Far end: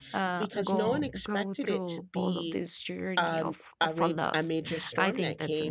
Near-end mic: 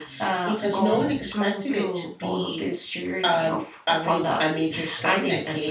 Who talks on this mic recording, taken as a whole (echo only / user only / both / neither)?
echo only